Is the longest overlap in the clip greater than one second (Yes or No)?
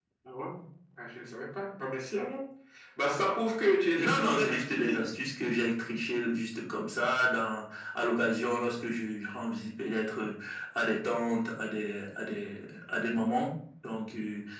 Yes